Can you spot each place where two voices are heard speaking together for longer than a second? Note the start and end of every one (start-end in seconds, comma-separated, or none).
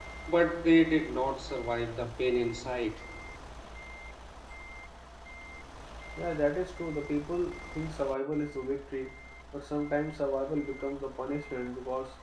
none